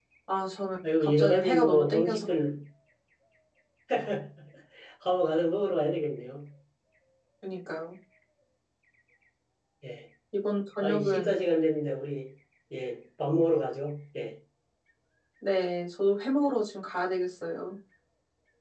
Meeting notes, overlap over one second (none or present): present